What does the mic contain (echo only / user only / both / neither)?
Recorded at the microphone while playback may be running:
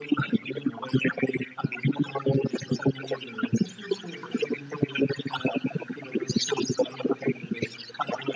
echo only